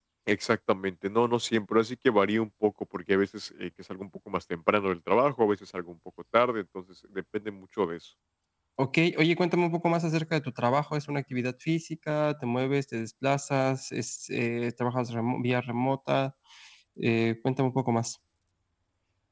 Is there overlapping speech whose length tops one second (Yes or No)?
No